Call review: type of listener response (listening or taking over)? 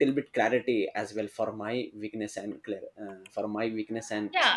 taking over